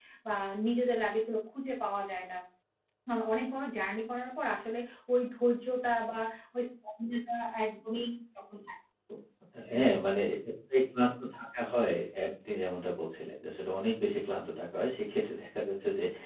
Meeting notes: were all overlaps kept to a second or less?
Yes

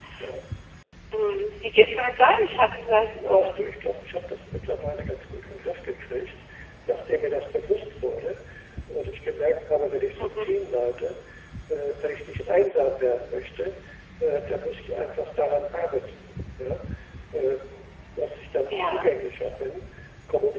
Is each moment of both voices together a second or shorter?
Yes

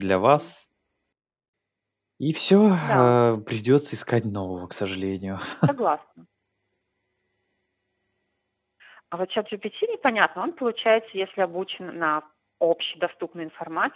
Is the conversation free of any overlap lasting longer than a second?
Yes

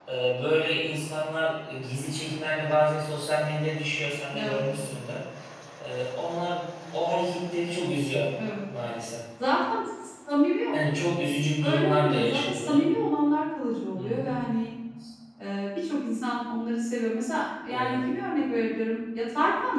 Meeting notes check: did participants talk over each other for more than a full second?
Yes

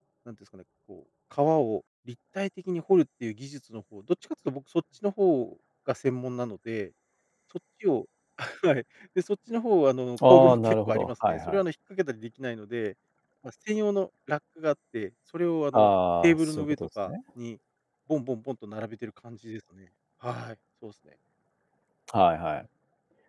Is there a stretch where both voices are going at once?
Yes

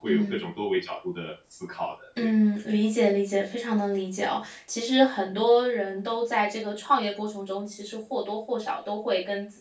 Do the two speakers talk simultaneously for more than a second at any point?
No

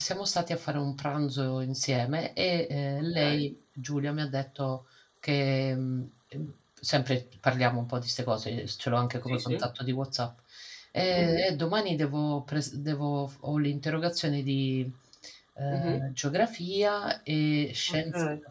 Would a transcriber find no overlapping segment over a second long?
Yes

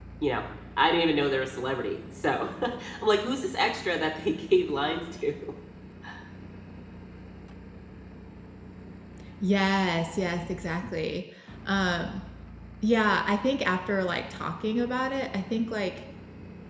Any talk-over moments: No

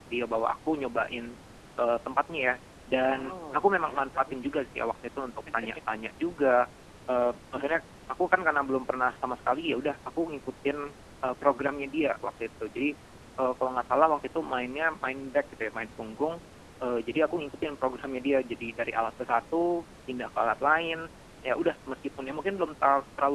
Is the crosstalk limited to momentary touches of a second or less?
No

